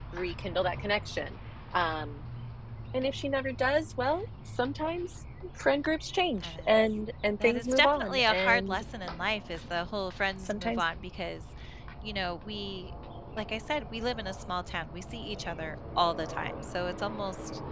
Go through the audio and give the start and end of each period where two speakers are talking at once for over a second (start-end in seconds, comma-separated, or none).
7.4-8.8